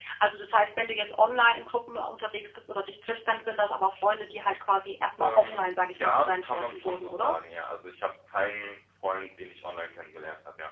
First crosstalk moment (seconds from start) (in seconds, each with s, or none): 5.2 s